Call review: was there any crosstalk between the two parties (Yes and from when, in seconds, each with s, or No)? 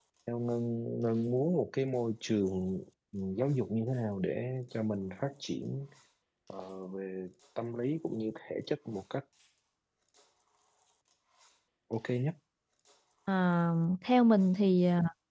No